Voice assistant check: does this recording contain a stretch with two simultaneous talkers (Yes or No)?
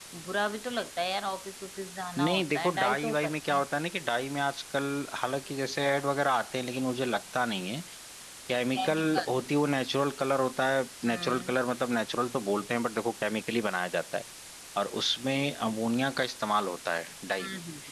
Yes